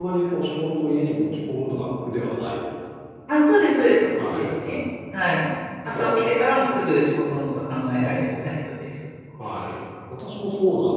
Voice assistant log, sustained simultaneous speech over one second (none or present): none